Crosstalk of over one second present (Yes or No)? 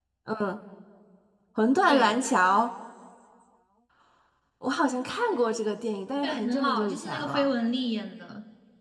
Yes